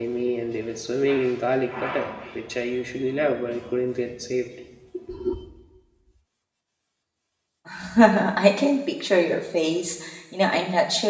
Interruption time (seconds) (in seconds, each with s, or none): none